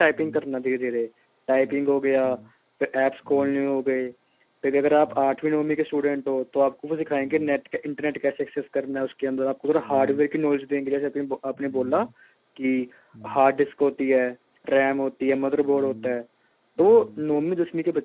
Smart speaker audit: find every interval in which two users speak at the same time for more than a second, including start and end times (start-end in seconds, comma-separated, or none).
none